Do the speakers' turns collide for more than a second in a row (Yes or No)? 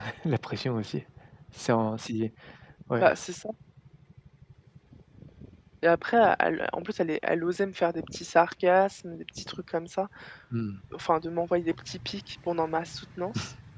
No